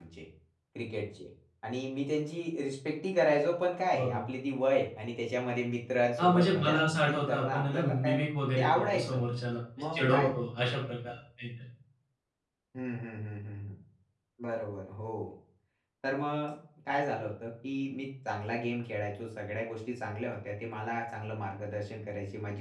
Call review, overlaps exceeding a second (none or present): present